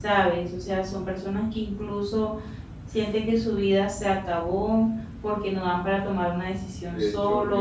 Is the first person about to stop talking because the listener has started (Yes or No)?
Yes